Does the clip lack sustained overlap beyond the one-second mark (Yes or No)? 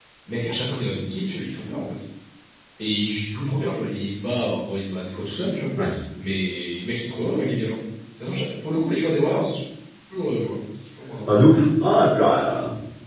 Yes